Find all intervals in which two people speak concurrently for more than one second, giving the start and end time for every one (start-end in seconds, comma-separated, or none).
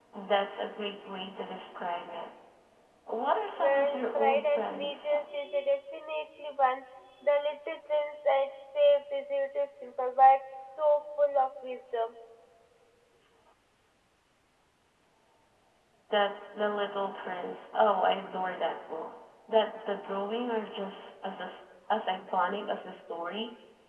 3.6-5.1